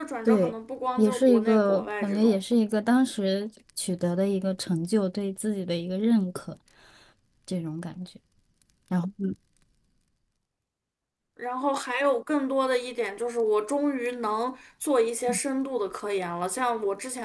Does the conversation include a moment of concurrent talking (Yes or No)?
Yes